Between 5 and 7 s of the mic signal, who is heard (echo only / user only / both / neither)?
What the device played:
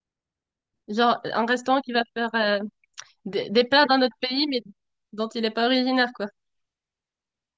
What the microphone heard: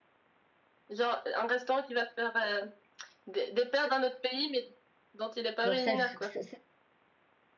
both